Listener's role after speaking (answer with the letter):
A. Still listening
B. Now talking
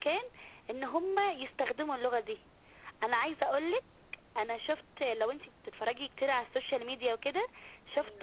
A